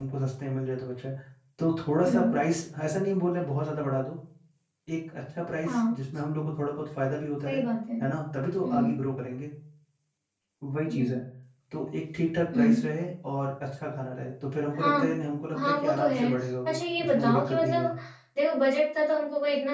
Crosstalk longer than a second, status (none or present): present